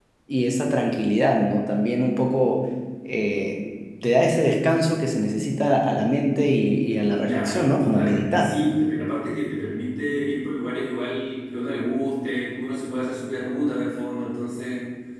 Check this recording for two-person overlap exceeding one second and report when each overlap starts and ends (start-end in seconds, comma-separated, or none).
7.2-8.5